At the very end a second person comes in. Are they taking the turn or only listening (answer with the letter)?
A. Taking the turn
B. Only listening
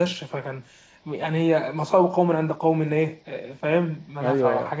A